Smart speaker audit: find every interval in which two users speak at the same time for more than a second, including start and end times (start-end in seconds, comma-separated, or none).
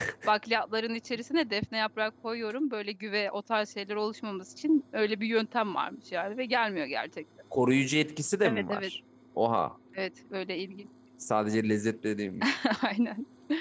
none